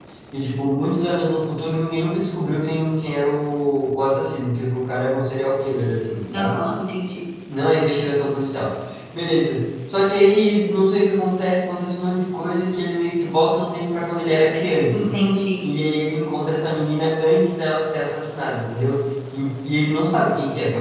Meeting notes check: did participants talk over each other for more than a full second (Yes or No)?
No